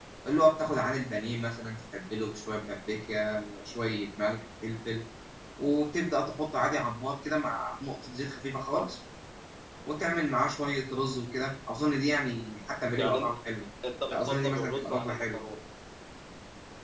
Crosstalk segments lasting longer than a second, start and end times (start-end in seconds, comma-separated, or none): 14.1-15.4